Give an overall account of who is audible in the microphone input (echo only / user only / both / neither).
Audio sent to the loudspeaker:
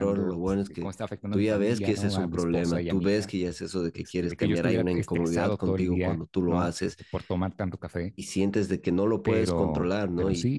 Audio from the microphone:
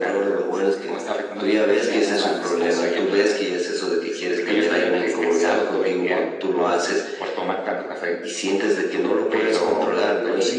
echo only